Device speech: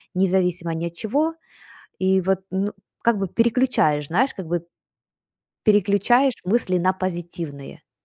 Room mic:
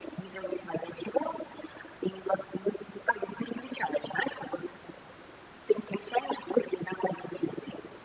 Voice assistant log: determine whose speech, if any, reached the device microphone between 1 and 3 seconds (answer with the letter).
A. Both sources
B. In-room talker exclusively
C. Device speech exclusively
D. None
C